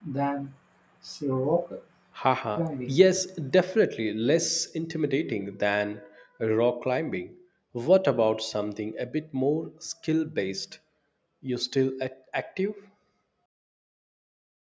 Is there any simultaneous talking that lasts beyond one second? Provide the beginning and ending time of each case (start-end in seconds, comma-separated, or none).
none